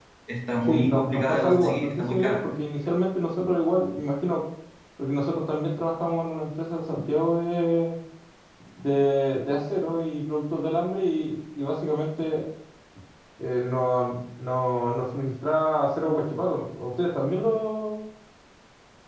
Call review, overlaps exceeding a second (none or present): present